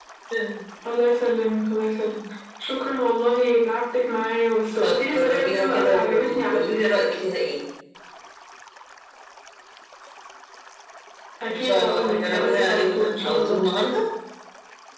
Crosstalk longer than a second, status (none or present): present